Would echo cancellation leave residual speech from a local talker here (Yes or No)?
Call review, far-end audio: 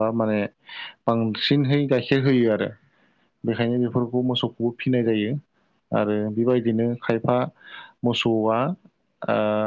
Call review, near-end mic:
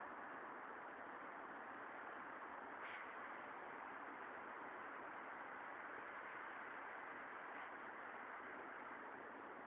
No